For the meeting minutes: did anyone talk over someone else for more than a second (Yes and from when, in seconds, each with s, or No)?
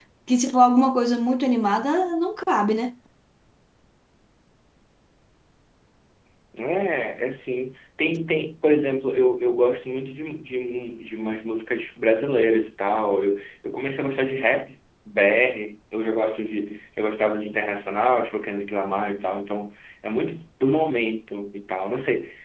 No